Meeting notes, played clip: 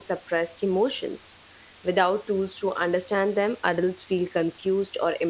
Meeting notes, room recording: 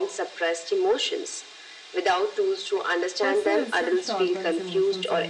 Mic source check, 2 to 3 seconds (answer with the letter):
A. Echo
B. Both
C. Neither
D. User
A